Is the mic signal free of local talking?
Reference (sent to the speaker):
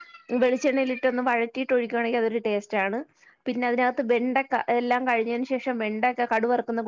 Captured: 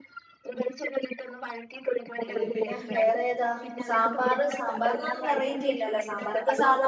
No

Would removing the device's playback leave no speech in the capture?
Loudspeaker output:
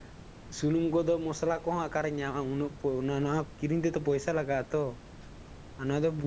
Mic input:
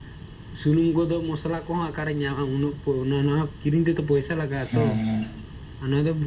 No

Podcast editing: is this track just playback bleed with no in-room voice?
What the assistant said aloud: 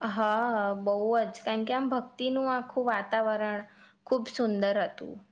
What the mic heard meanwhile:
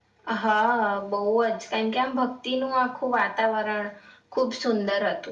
Yes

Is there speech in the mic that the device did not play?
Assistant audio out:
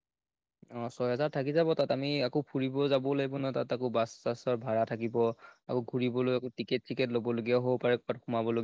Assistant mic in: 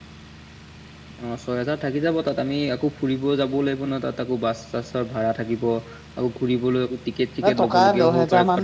Yes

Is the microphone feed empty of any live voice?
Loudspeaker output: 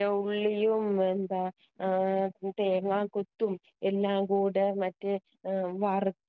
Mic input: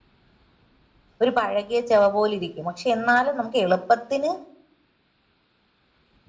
No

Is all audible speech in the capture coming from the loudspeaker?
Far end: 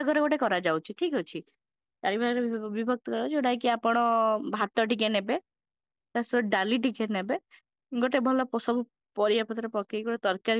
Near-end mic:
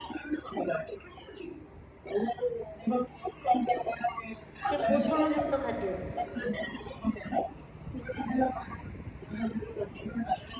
No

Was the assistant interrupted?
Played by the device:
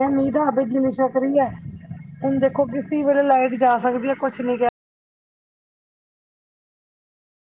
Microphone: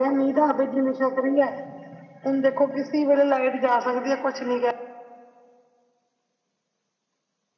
No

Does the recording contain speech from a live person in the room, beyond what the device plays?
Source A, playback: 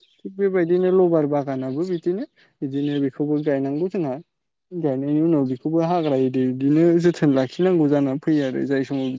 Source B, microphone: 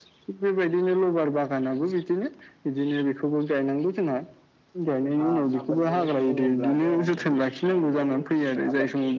Yes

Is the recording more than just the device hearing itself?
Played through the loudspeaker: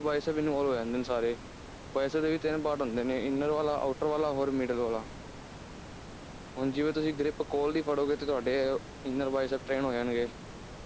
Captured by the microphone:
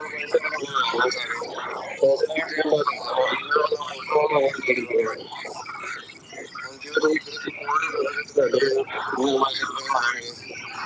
No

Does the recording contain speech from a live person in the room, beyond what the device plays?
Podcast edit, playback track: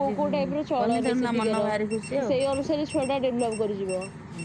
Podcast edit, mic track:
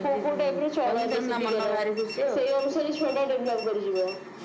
No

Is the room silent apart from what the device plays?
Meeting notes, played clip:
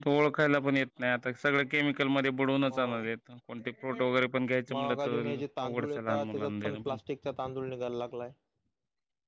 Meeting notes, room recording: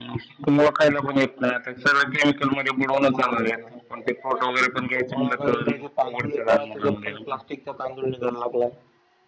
No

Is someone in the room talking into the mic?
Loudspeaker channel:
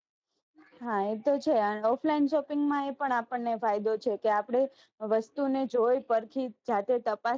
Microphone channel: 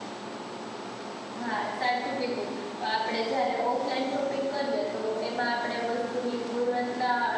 Yes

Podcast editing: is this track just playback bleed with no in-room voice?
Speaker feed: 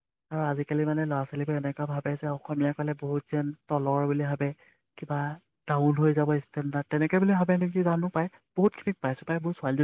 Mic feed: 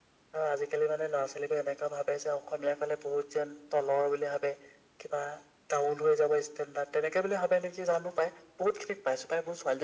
Yes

